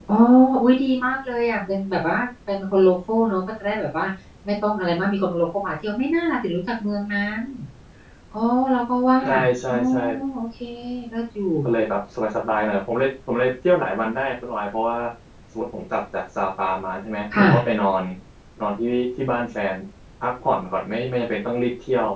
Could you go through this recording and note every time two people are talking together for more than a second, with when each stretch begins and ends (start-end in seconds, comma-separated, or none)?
none